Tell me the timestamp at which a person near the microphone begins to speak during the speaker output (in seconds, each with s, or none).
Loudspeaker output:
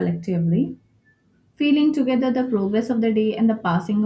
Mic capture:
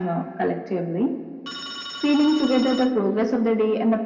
none